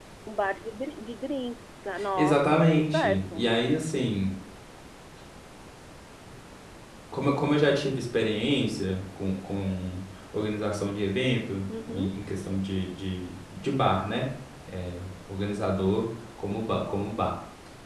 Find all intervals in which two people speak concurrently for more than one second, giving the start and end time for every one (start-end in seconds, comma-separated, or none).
2.2-3.4